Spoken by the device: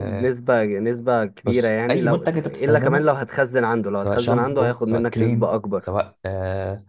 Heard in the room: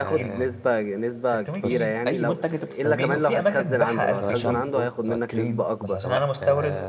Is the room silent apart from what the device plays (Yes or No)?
No